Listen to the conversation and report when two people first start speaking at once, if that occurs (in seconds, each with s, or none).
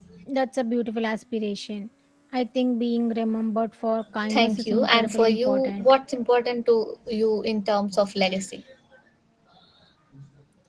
4.3 s